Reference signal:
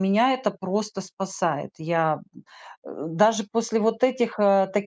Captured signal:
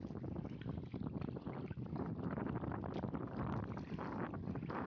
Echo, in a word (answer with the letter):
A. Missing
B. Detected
A